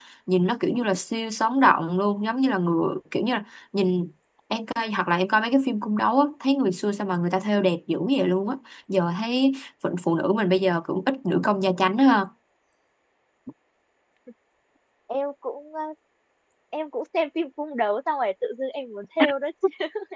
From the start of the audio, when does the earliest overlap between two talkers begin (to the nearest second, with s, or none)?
none